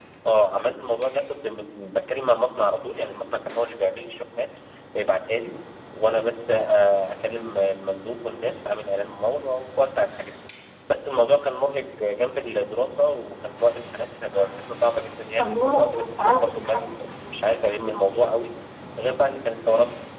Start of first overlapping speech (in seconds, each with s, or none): 15.4 s